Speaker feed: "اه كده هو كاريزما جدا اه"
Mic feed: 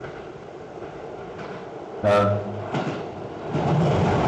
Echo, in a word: none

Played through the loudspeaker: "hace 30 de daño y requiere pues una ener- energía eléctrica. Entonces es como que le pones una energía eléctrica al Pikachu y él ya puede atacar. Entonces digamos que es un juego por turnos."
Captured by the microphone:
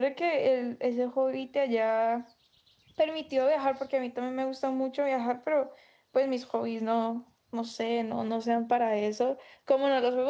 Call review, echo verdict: none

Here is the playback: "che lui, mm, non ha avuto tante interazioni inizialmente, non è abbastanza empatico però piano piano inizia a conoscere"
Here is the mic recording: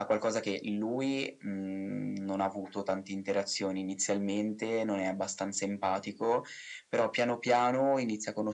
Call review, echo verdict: present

